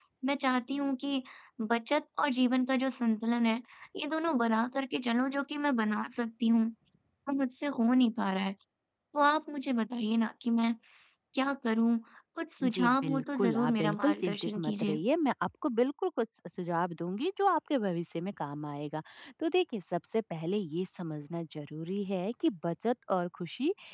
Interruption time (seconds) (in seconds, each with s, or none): 12.6 s